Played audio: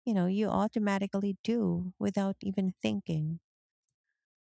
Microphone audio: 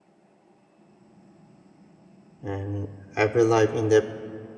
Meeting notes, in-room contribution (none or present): present